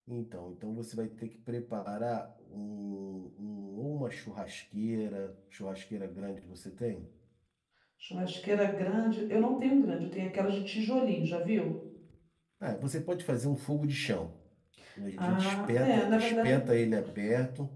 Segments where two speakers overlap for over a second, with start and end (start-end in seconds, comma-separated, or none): 15.2-16.5